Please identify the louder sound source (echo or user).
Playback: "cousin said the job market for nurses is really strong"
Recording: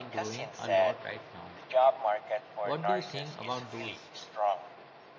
echo